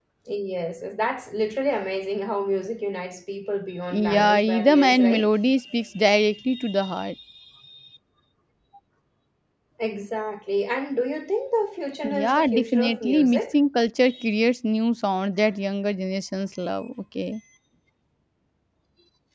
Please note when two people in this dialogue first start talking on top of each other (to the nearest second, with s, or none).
4 s